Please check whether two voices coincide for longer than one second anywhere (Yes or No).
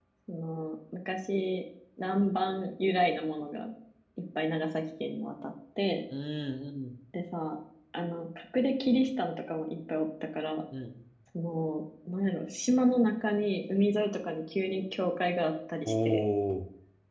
No